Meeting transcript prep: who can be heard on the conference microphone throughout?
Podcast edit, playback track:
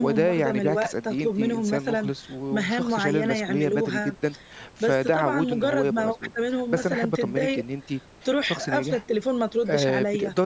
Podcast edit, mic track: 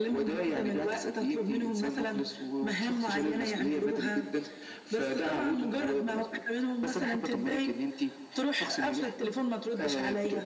echo only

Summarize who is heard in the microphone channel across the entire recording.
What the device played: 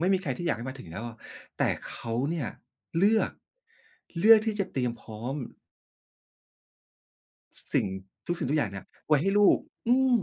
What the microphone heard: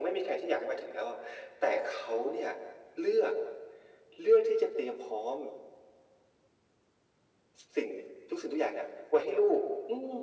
echo only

